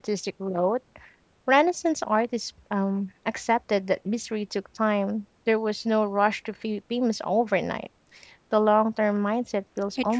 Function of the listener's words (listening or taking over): taking over